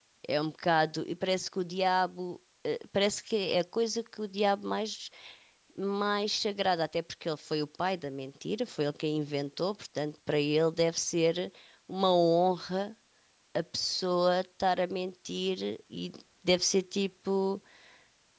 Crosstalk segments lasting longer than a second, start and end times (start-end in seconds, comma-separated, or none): none